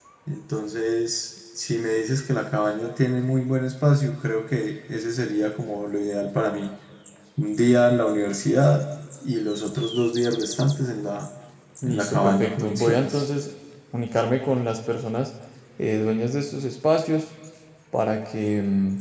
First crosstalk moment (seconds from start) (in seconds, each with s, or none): 11.9 s